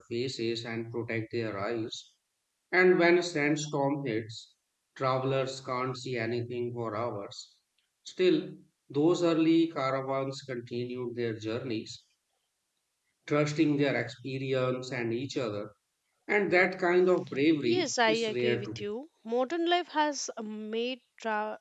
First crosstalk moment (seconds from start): 17.6 s

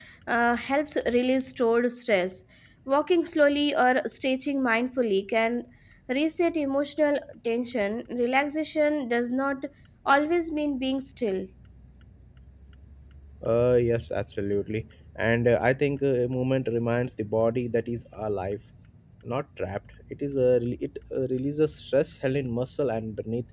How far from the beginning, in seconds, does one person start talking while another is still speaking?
none

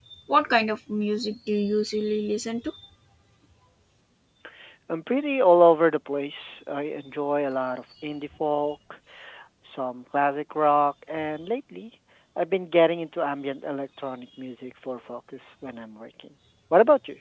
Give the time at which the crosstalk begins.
none

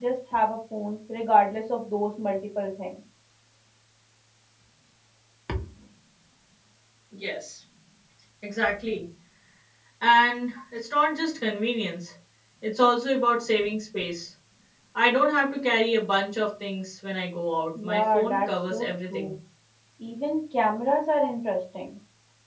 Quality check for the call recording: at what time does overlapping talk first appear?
17.8 s

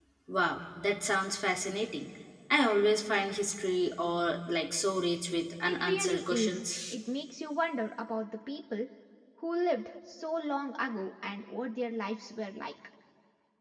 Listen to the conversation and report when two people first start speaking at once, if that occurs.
5.7 s

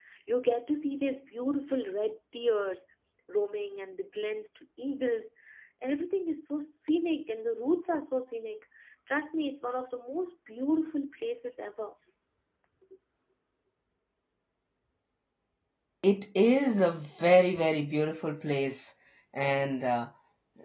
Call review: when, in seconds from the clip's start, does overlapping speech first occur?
none

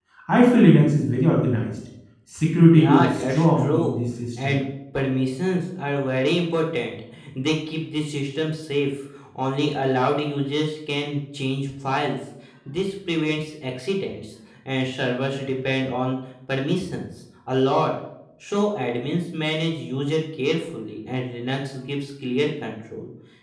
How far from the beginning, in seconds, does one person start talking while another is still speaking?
2.7 s

